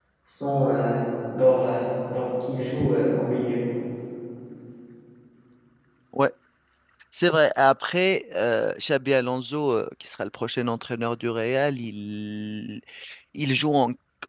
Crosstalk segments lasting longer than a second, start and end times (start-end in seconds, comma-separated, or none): none